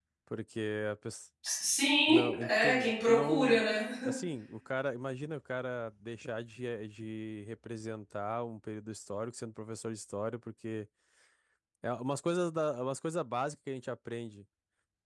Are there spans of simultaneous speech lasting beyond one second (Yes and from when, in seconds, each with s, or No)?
Yes, from 2.1 s